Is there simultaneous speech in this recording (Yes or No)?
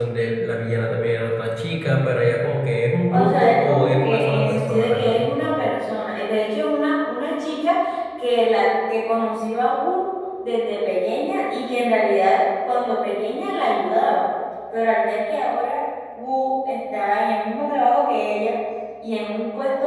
Yes